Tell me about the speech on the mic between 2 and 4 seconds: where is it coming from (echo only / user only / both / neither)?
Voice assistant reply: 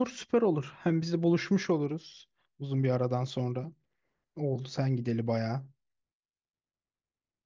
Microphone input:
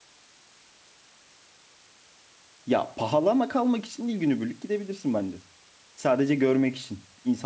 user only